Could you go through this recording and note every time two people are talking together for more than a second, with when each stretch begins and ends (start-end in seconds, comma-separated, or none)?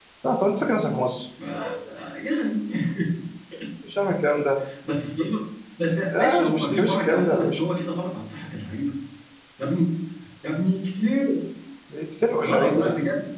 6.2-7.6